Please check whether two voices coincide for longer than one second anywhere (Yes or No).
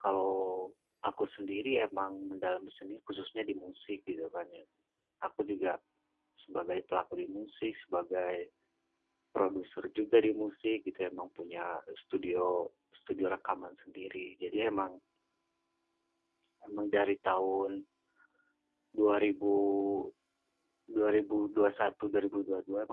No